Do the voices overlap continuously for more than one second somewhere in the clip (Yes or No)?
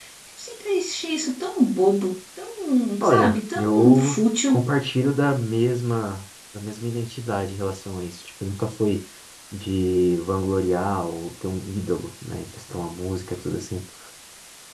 Yes